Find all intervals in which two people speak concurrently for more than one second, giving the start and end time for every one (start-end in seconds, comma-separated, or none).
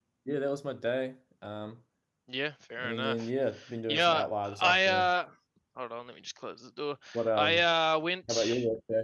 3.9-5.1